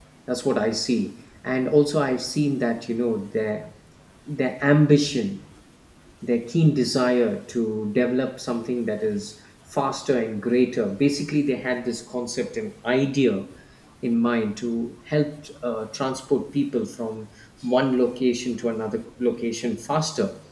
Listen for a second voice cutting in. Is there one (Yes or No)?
No